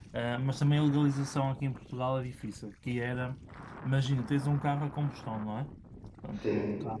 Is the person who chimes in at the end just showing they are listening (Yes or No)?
Yes